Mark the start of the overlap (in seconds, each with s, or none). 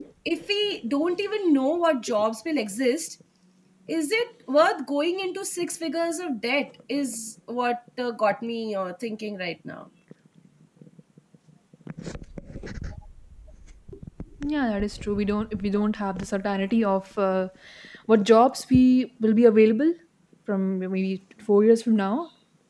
none